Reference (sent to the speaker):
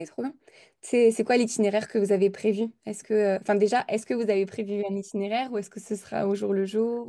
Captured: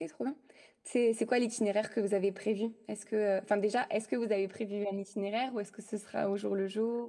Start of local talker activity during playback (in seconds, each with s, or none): none